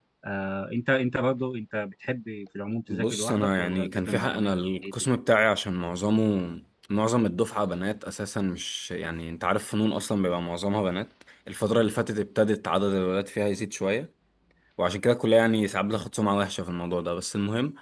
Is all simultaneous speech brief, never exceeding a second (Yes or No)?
No